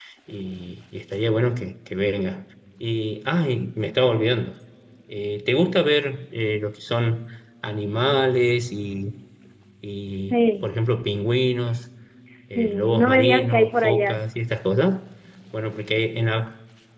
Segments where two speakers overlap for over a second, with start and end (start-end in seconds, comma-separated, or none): 12.6-14.3